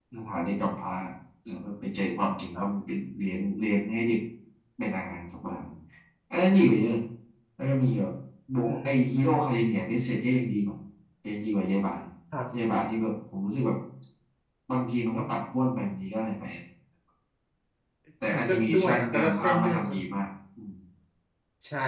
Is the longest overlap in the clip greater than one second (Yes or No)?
Yes